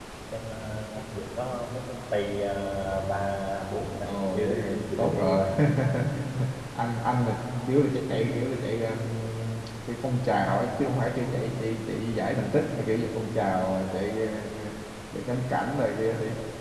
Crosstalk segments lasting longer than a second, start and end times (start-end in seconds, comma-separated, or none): 4.0-5.4